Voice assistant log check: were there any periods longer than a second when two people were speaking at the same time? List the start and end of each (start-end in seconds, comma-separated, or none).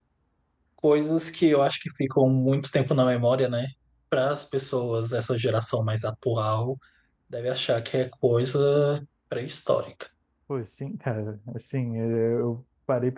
none